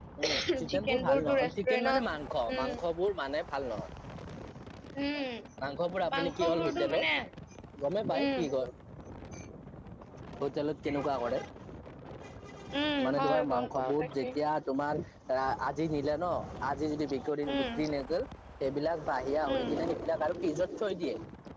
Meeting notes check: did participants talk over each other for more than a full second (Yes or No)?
Yes